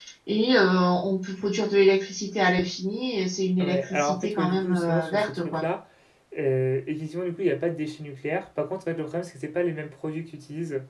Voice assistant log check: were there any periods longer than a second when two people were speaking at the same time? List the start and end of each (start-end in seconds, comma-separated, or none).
3.6-5.6